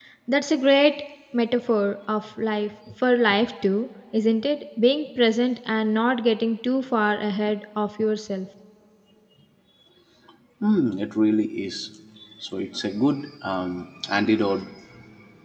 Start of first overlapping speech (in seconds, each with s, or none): none